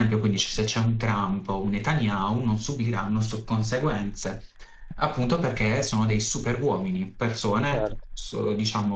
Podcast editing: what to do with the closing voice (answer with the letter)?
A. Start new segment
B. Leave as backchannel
B